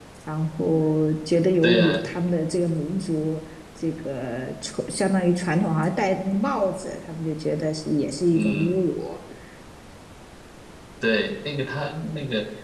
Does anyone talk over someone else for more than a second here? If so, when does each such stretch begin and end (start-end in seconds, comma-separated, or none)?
none